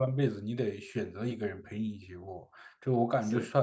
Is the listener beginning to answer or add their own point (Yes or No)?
No